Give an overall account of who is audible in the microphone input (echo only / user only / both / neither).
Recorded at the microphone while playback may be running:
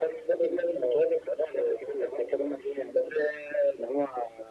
echo only